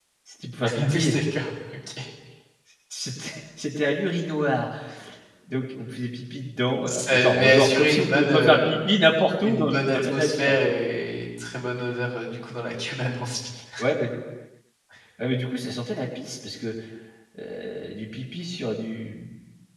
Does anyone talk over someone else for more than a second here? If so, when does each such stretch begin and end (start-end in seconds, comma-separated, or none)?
6.9-8.6, 9.4-10.7